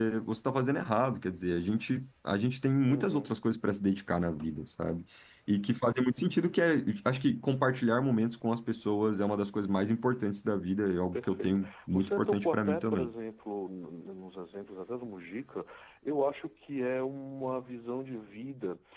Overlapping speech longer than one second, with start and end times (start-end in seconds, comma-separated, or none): 11.1-13.1